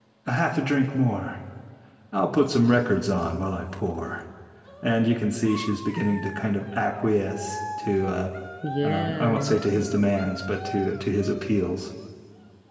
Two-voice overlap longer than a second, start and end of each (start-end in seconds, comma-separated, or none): 8.8-10.1